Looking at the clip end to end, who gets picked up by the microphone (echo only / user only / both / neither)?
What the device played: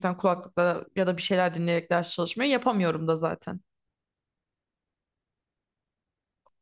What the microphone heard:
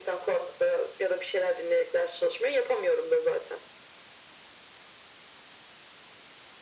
echo only